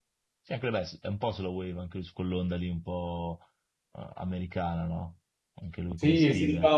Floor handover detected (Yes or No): Yes